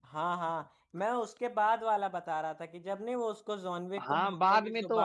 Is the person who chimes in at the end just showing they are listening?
No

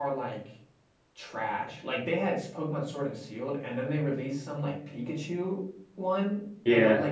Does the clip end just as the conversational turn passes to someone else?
No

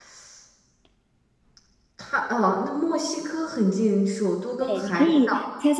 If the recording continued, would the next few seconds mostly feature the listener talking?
Yes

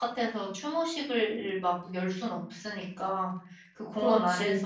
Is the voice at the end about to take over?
No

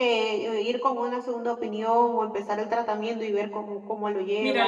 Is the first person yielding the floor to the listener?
Yes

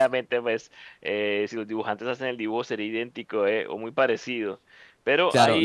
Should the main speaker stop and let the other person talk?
Yes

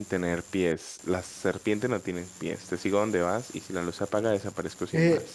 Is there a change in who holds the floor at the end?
Yes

